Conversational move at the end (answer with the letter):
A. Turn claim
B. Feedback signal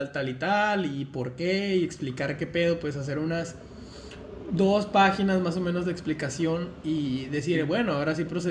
B